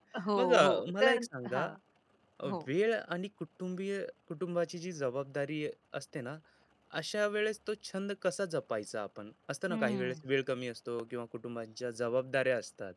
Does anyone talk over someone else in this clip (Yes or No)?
Yes